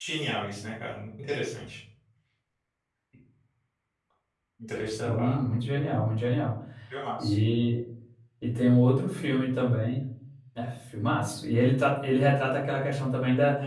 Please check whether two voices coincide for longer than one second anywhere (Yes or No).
No